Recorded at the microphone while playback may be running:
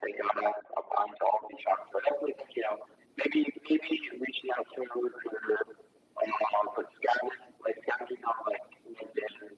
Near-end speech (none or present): none